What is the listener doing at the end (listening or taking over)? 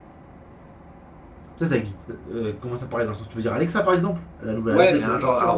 taking over